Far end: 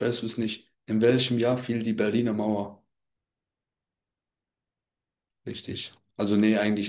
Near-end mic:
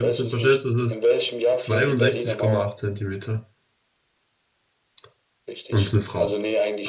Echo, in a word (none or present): present